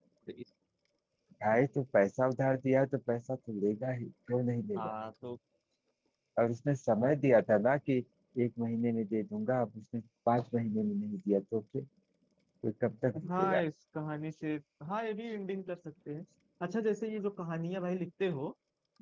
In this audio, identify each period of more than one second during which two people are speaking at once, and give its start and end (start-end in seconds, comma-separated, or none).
none